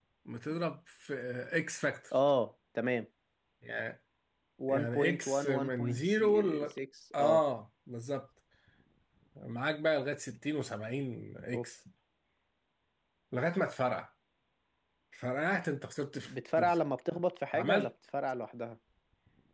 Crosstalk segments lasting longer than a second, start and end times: 4.7-6.6

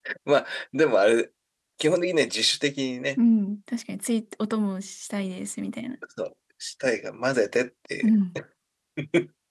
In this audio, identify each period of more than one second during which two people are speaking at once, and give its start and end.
none

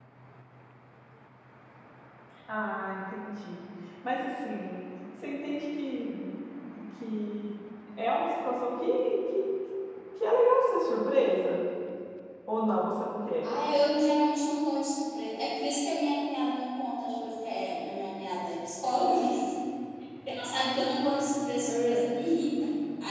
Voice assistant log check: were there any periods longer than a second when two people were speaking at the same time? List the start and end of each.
none

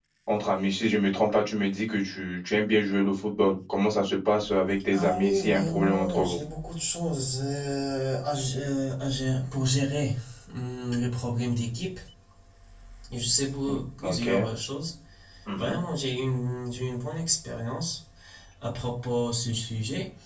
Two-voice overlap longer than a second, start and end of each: 4.9-6.4

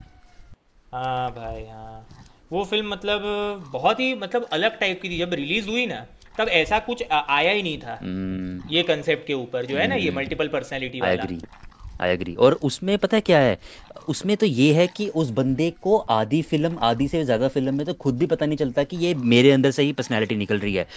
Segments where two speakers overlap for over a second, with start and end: none

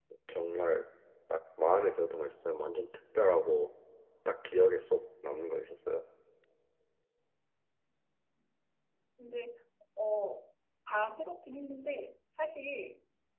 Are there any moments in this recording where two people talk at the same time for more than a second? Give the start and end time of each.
none

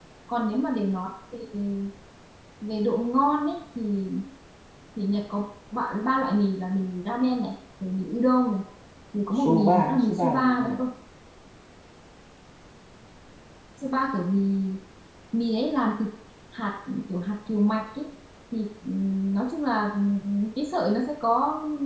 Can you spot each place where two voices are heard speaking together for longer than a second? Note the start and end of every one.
9.3-10.8

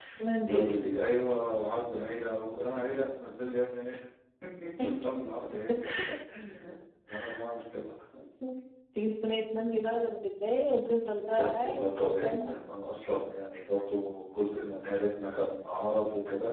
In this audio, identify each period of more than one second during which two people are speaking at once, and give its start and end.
11.2-12.5

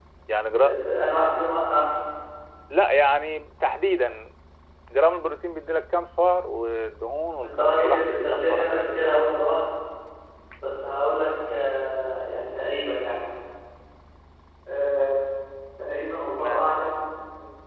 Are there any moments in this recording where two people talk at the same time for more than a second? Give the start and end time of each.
7.4-8.9

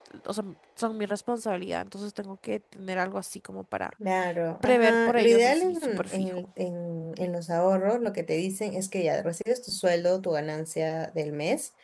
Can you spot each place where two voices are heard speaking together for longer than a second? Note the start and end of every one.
4.6-6.5

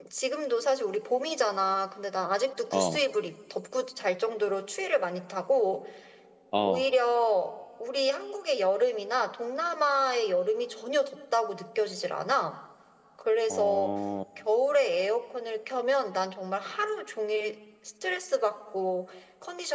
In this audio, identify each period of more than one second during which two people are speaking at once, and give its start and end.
none

